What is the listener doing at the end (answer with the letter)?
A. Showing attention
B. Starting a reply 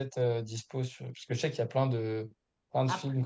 A